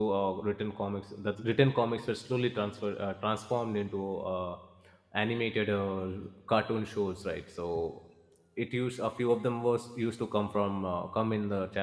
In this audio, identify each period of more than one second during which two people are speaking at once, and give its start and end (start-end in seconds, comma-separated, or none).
none